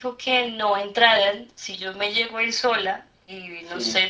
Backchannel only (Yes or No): Yes